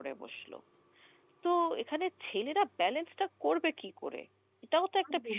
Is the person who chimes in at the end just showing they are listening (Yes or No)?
No